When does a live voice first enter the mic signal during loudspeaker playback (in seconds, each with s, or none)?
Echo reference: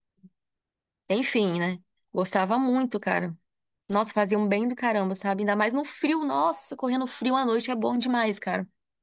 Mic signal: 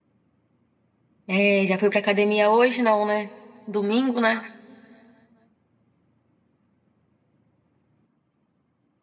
1.3 s